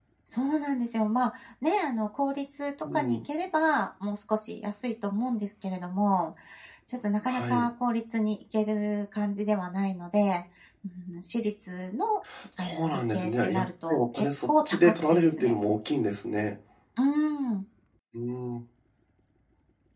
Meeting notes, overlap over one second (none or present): present